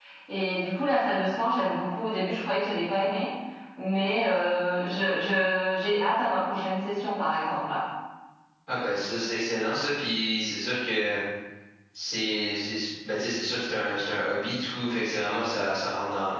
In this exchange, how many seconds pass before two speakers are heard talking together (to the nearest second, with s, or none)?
none